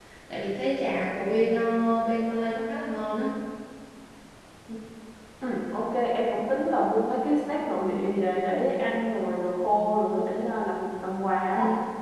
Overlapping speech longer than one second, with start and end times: none

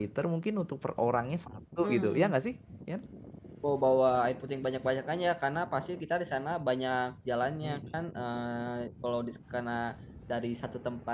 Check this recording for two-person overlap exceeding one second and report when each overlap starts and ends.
none

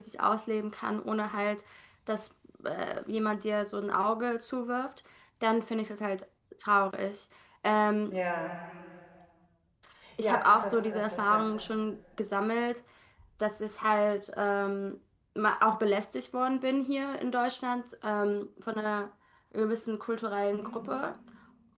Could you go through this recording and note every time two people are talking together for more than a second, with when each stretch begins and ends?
10.2-11.5

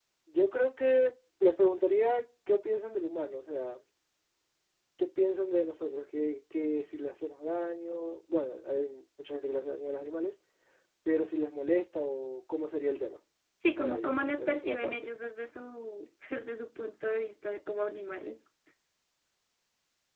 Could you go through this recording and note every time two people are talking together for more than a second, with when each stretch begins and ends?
13.8-15.1

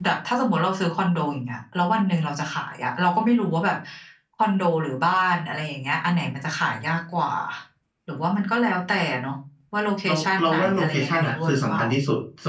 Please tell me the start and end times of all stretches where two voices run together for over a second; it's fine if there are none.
10.1-11.8

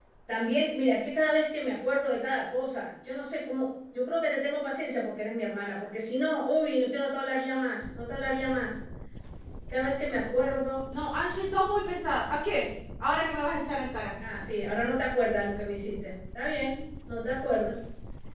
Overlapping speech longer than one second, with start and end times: none

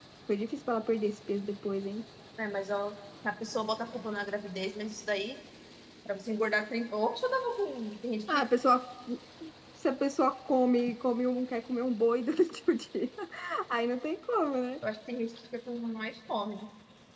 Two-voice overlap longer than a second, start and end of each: none

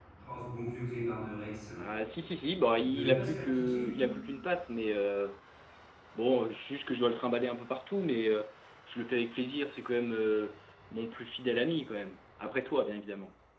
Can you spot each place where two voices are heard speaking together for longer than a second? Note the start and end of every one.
2.8-4.1

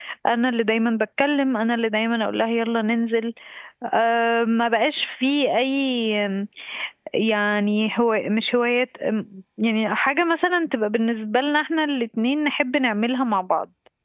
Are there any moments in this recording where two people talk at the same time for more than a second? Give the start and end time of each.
none

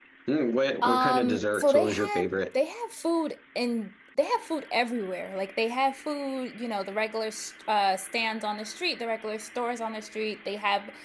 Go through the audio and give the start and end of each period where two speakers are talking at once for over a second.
0.8-2.6

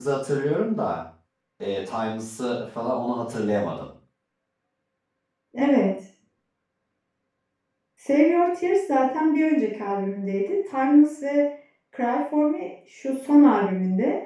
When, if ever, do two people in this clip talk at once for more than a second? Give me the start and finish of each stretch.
none

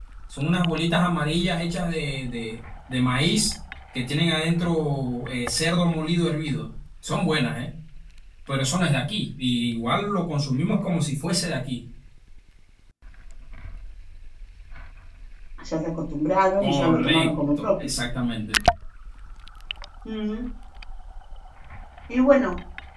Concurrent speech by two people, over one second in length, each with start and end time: 16.6-17.9

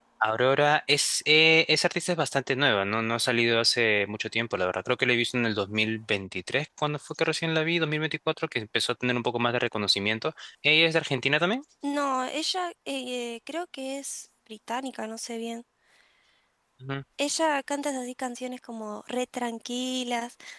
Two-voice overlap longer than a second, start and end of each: none

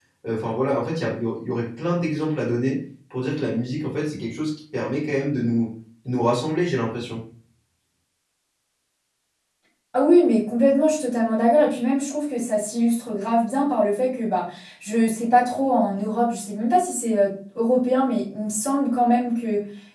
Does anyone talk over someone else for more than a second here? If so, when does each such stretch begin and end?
none

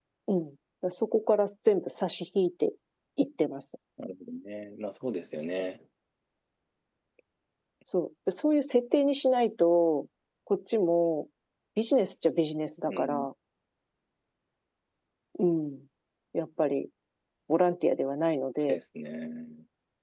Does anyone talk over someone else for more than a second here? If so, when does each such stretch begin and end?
none

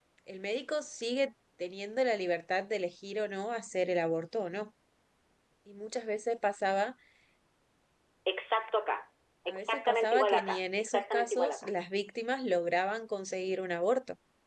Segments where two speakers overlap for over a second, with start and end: 9.5-11.7

